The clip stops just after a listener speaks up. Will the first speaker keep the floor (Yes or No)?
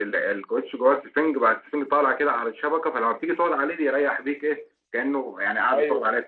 No